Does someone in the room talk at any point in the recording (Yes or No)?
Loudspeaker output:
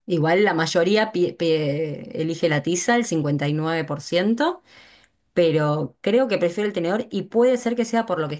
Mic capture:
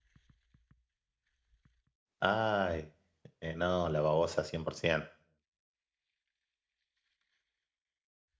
Yes